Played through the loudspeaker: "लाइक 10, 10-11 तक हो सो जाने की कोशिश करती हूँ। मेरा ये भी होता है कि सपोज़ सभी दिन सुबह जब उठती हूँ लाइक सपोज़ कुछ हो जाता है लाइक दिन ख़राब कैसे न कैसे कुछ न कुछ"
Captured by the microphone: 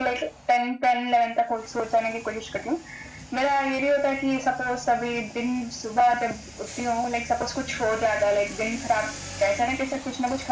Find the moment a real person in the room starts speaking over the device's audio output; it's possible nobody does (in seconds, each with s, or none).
none